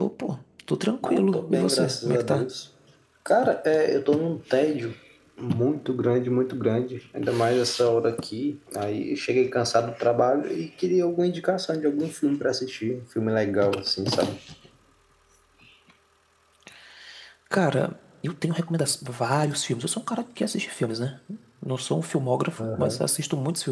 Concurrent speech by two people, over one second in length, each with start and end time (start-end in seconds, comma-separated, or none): 1.0-2.5